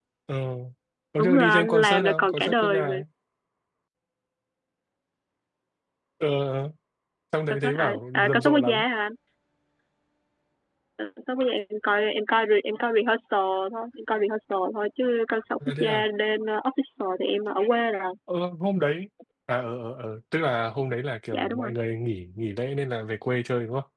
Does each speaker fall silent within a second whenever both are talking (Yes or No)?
No